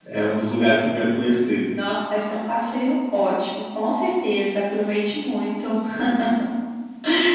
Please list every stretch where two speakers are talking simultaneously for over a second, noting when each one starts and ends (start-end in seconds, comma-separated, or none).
none